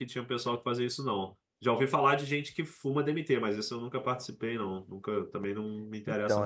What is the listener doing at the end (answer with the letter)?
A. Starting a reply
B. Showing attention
A